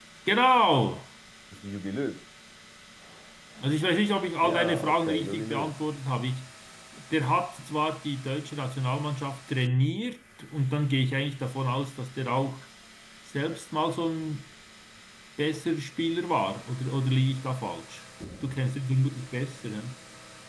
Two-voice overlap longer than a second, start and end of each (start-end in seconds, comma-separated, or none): 4.4-5.7